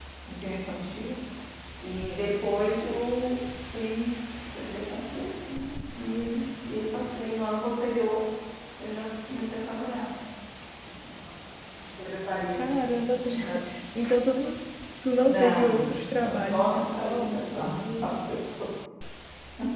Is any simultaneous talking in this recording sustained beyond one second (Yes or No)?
Yes